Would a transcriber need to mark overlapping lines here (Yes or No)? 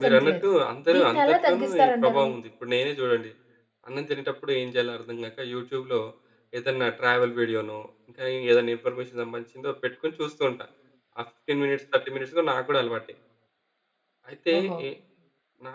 Yes